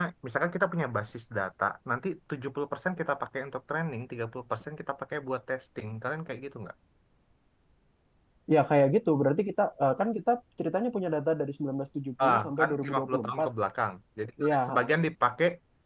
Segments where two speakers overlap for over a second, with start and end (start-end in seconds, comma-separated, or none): 12.2-13.5